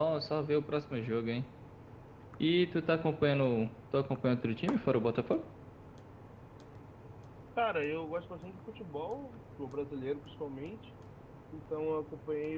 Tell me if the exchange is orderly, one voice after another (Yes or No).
Yes